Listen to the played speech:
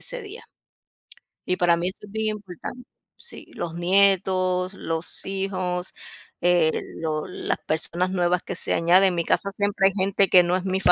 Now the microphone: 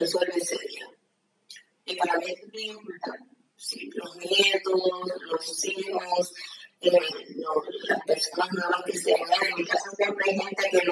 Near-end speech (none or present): none